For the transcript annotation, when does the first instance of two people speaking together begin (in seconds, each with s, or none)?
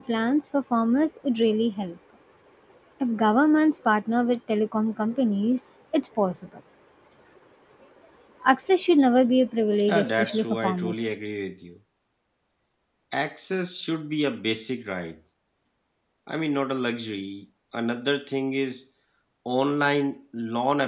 9.9 s